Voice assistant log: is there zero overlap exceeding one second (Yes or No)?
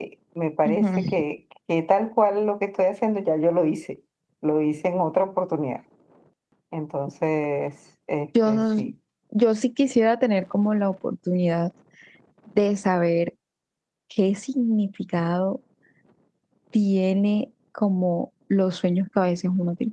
Yes